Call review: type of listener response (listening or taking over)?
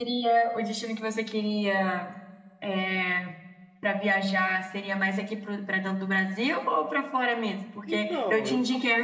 listening